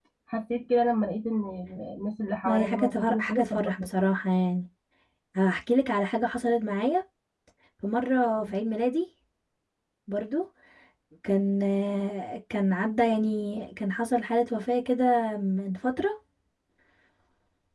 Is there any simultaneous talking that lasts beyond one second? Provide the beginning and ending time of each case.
2.5-3.9

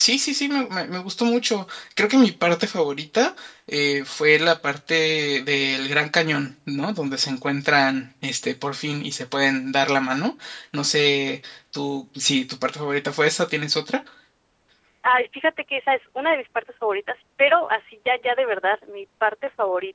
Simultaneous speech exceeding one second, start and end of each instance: none

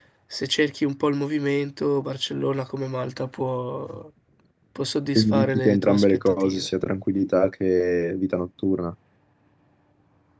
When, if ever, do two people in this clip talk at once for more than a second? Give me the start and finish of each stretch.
5.2-6.7

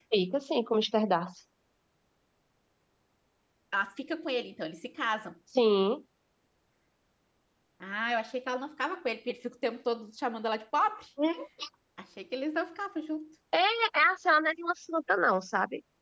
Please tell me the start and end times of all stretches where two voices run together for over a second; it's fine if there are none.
none

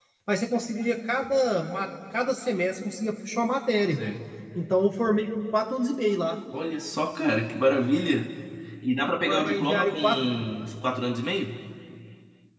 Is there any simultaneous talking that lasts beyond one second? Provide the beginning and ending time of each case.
9.2-10.5

